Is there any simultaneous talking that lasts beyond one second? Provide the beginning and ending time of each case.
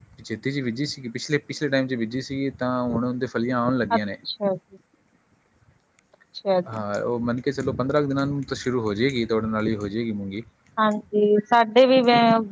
none

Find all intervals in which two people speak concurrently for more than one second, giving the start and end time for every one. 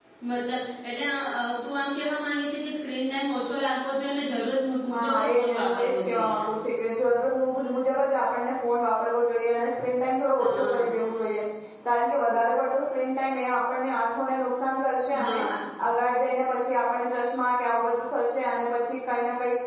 5.0-6.4

